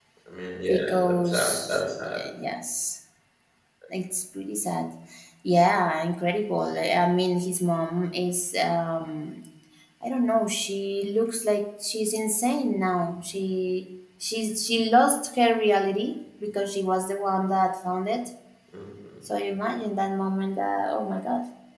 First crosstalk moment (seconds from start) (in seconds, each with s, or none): 0.7 s